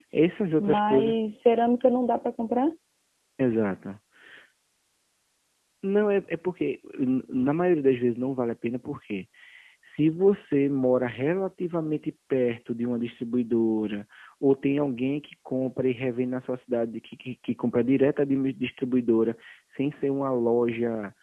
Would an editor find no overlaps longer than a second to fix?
Yes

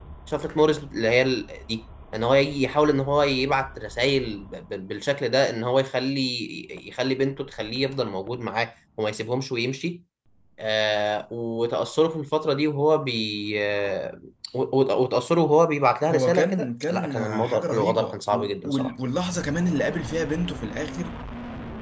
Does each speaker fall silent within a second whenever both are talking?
No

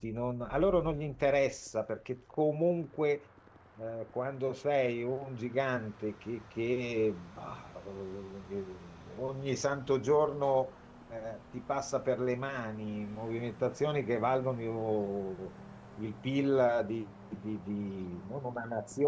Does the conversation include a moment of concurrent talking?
No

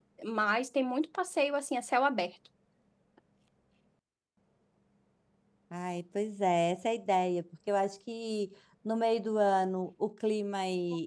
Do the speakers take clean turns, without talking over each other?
Yes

